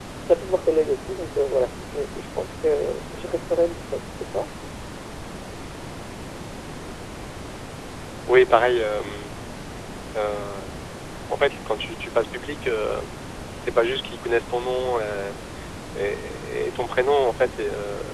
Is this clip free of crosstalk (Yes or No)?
Yes